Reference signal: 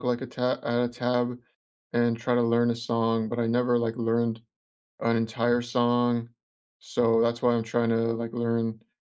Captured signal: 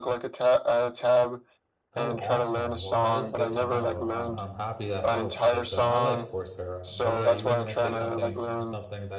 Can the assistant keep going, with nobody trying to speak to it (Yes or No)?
No